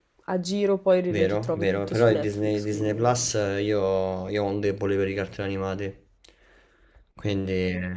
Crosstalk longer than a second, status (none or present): present